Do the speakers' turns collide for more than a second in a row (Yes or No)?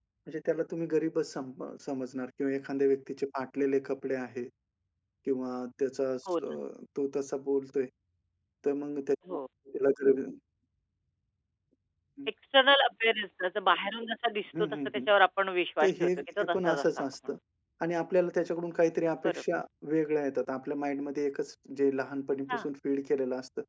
Yes